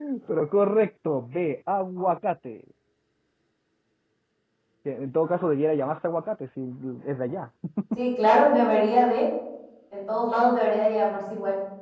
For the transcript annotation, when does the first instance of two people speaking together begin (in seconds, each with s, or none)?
none